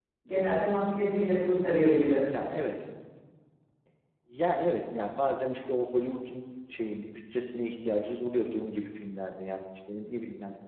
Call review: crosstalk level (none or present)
none